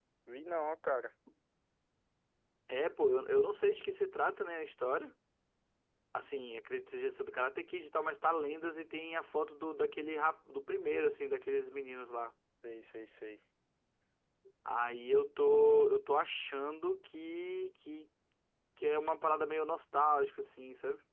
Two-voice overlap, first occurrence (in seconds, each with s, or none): none